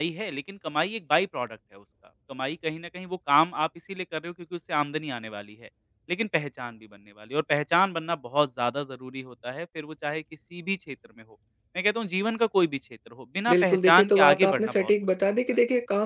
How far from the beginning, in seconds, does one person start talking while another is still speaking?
13 s

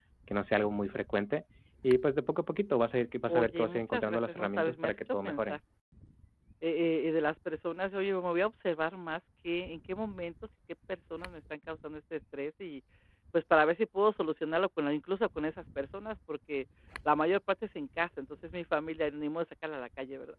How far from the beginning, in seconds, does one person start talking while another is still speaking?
3 s

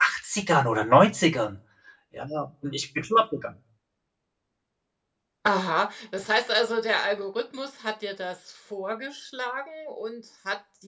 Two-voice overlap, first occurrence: none

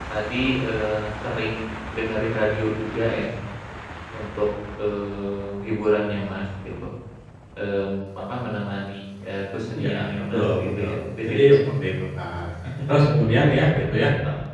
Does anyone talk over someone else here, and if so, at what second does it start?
10 s

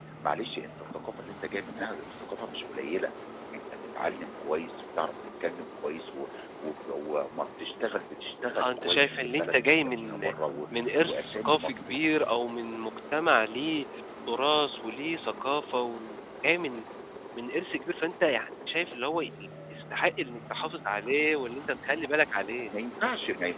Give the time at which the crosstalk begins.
9 s

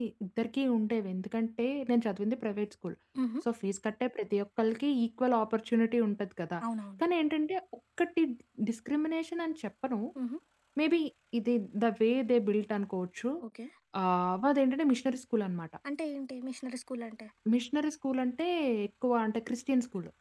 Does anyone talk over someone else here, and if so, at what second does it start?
none

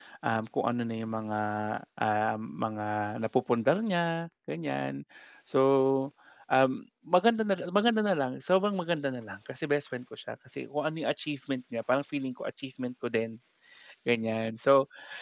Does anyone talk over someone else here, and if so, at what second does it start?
none

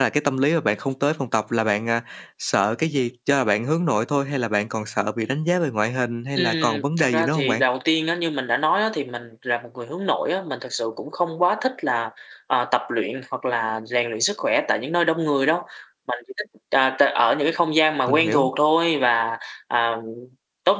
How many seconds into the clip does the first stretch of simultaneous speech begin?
6 s

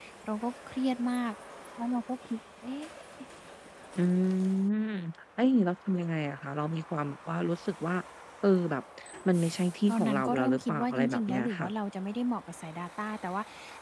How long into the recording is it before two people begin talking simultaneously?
10 s

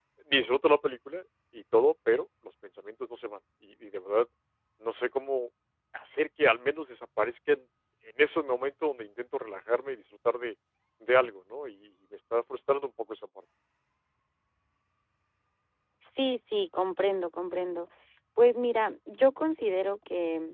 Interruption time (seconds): none

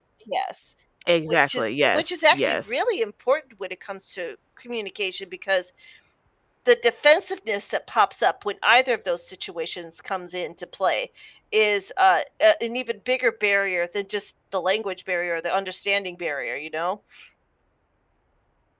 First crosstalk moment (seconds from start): 1 s

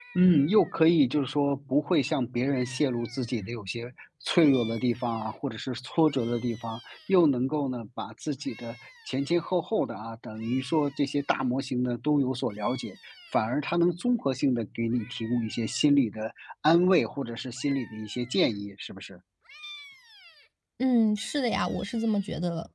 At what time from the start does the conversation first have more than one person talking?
none

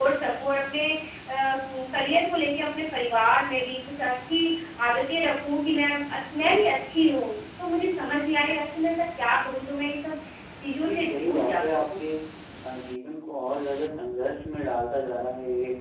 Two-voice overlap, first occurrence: 11 s

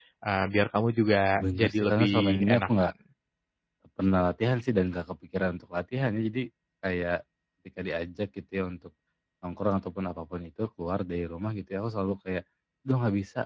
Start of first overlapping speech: 1 s

